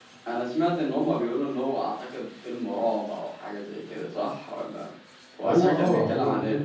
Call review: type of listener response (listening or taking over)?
taking over